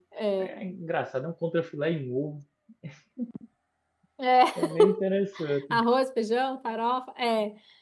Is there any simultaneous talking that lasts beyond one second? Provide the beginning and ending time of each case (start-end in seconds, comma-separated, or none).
none